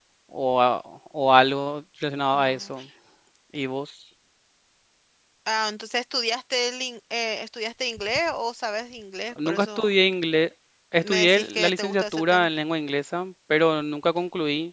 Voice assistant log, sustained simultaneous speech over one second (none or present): present